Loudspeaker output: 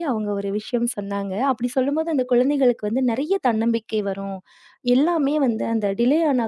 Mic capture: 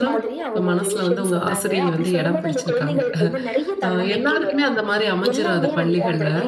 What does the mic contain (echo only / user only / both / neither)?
both